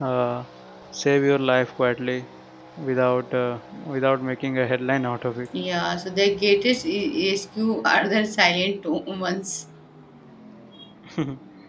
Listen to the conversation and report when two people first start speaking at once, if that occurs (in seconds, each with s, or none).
none